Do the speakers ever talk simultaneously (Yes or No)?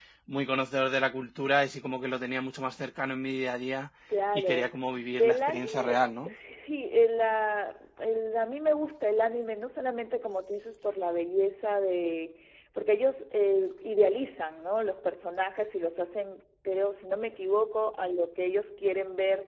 Yes